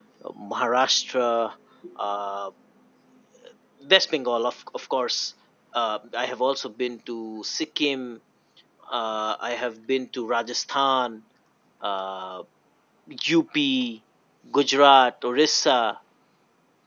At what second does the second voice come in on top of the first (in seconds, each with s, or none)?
none